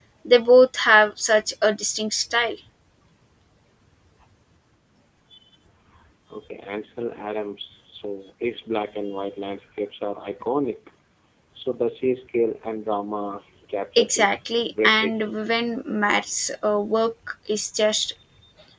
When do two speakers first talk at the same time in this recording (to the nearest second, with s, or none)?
14 s